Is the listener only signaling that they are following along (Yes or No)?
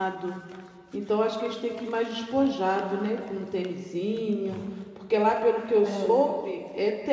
Yes